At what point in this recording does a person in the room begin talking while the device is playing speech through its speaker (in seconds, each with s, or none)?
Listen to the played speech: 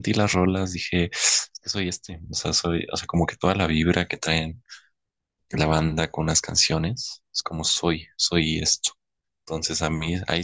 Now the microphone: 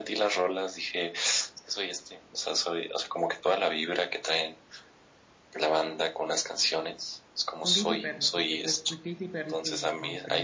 7.6 s